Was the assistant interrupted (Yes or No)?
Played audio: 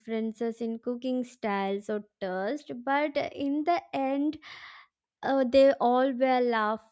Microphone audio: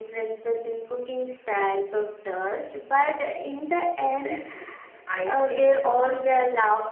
Yes